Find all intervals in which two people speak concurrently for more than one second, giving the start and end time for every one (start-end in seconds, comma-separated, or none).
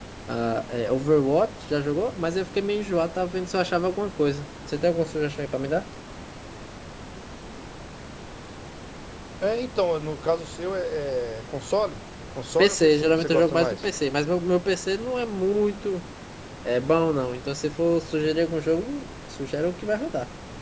12.6-13.9